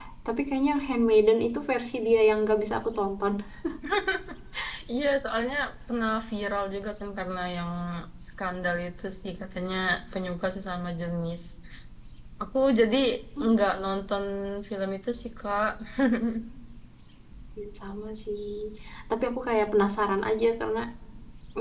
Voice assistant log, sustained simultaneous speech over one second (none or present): none